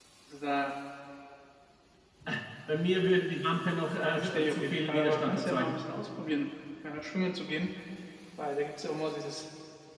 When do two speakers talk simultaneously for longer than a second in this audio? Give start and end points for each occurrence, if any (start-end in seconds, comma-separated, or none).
4.0-5.8